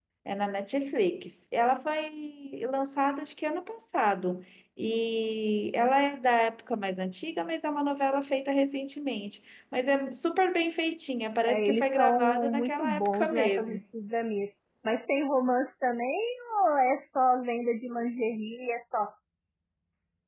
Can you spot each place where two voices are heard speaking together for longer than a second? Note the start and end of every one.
11.5-13.8

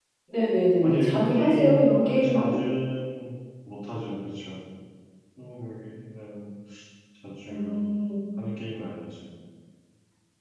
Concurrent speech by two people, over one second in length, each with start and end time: 0.8-2.6

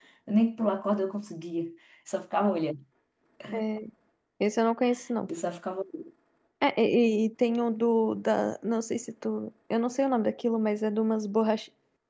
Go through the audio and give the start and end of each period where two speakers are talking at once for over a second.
none

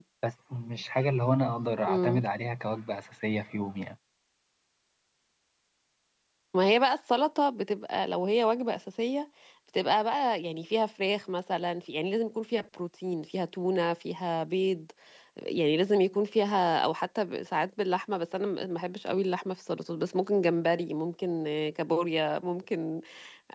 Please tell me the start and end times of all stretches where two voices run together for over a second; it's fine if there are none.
none

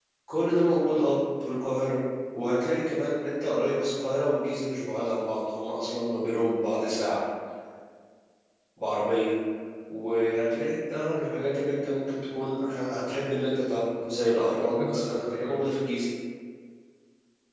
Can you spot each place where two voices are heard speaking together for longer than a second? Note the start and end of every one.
14.1-15.6

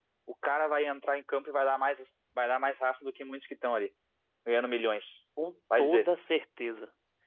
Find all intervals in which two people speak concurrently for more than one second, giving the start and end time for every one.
none

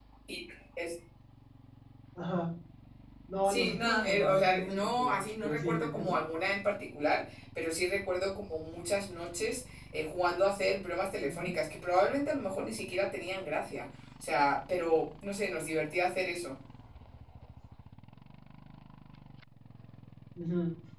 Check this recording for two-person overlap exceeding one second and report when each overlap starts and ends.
3.4-6.1

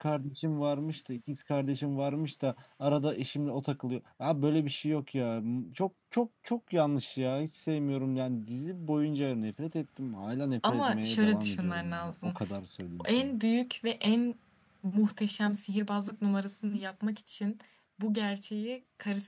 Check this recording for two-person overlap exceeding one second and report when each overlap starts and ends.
10.7-12.3

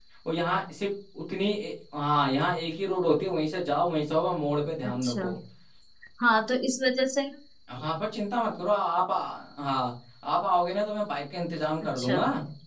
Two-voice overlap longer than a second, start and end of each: none

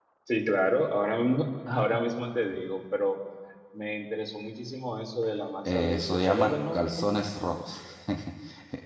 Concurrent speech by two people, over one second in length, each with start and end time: 5.7-7.2

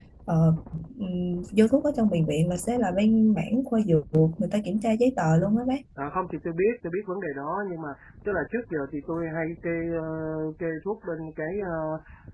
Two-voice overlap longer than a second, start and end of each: none

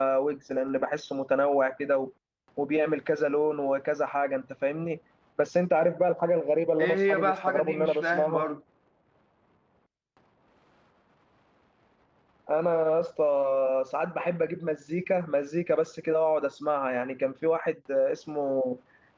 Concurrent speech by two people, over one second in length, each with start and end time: 6.8-8.4

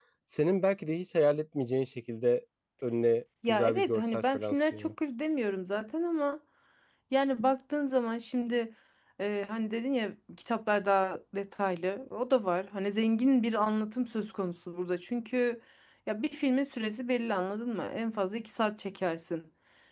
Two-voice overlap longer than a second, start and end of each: 3.5-4.9

